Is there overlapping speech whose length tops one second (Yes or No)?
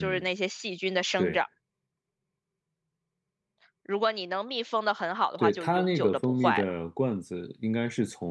Yes